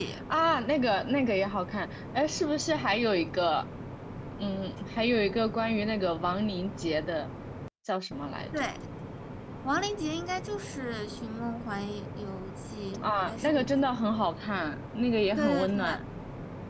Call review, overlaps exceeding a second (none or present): present